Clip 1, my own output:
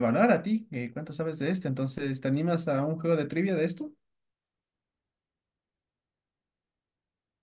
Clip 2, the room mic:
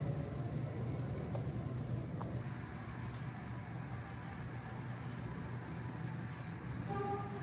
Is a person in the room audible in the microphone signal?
No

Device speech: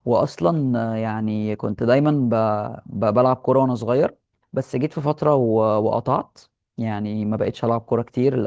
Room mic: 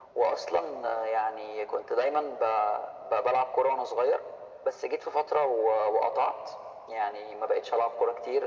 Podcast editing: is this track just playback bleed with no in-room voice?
Yes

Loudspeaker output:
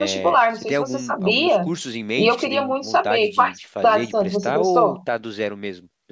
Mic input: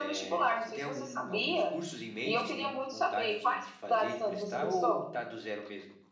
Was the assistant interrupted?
No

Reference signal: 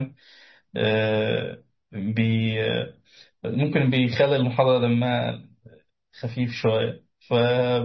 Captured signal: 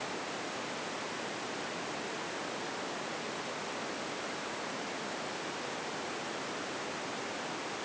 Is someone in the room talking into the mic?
No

